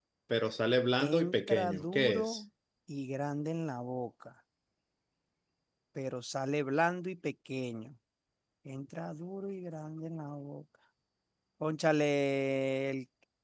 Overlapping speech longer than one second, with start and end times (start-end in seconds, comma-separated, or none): 1.0-2.4